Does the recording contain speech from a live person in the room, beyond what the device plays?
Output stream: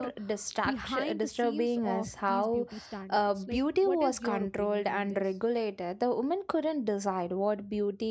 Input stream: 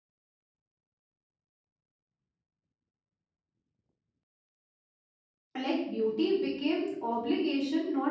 Yes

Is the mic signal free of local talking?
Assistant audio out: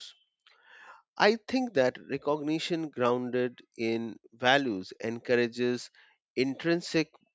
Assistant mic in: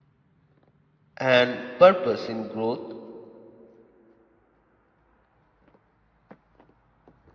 No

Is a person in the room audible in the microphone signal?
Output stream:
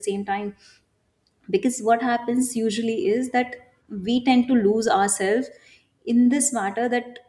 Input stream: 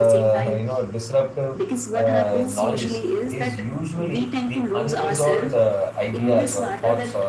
Yes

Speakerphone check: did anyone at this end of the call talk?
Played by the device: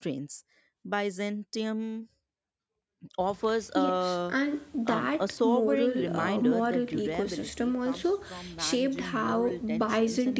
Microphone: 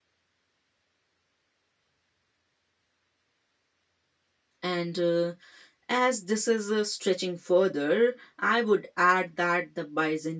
Yes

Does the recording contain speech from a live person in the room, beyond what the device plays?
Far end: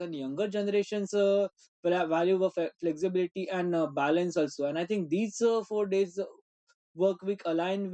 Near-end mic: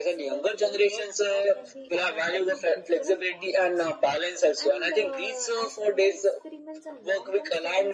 Yes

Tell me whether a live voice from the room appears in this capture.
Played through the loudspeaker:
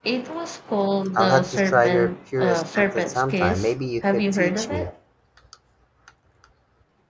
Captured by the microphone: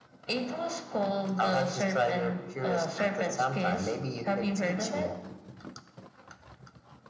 No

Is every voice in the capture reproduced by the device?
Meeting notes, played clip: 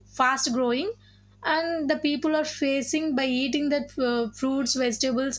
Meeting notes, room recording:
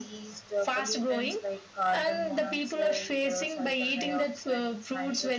No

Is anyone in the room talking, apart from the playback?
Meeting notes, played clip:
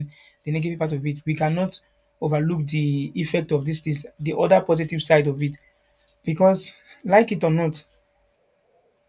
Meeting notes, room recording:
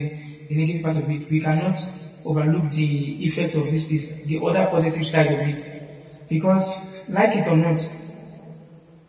No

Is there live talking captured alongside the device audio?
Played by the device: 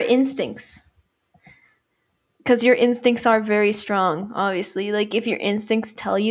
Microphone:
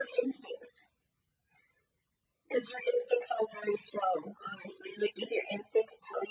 No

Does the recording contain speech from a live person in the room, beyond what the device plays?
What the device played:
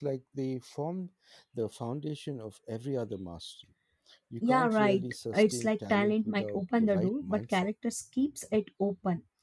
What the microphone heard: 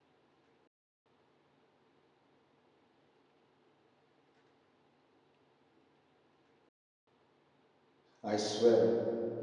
Yes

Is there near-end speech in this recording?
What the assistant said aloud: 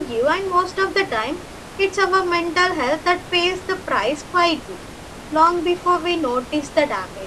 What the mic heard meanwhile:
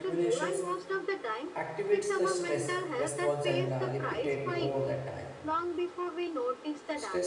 Yes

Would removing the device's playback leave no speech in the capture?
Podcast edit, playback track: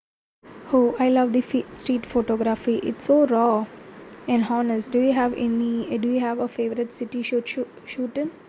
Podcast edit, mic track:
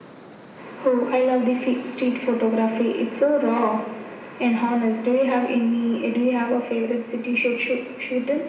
Yes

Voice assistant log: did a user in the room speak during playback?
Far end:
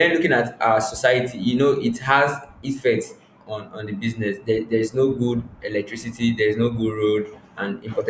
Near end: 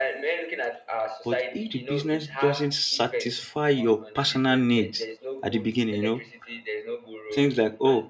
Yes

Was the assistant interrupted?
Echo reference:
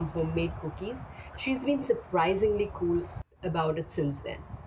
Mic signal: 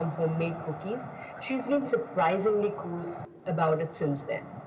No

